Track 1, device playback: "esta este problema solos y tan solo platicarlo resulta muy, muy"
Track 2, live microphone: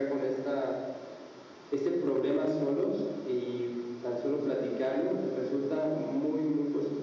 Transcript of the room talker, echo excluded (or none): none